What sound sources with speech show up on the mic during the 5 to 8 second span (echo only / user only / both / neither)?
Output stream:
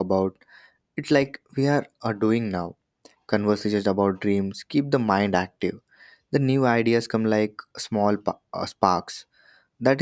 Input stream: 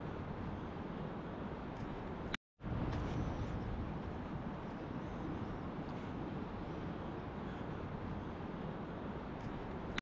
neither